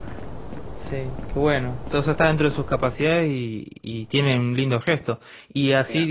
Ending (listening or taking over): listening